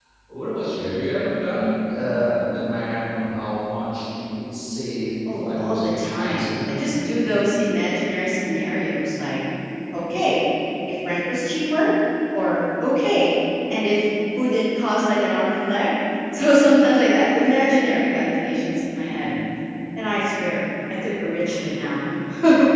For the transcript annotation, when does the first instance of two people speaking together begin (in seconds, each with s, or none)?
5.3 s